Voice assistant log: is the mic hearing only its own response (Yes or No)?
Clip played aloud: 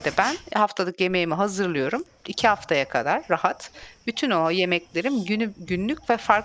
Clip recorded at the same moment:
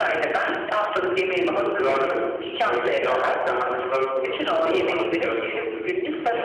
No